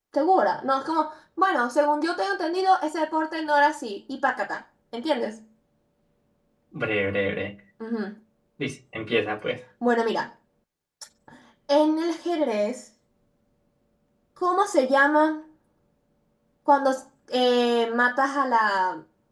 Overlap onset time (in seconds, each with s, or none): none